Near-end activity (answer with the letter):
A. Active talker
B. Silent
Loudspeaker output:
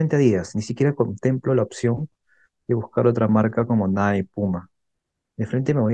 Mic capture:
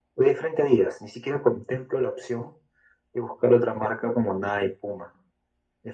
B